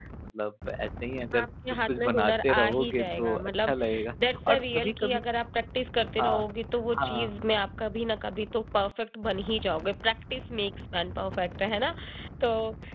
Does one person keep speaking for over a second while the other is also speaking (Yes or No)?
Yes